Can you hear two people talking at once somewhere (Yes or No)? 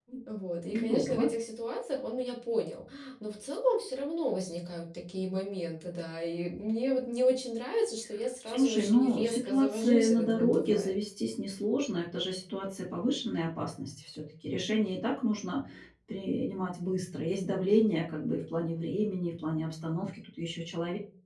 Yes